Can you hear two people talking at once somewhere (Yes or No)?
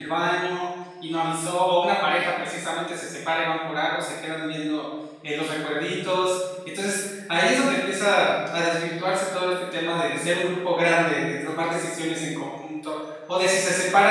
No